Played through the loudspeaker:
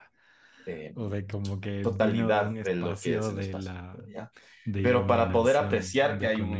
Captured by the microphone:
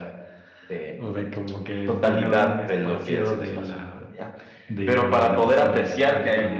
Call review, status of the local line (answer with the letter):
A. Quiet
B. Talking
A